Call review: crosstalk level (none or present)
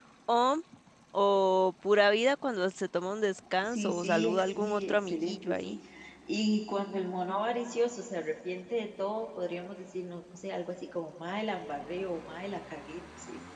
present